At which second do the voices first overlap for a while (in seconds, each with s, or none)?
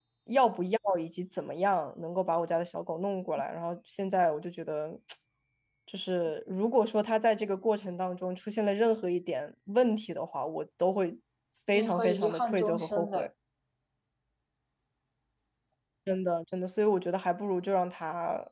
11.7 s